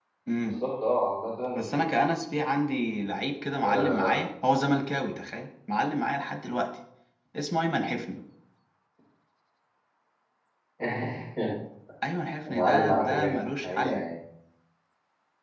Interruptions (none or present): present